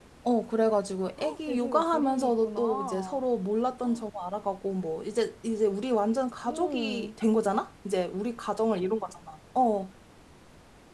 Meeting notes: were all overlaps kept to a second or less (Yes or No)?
No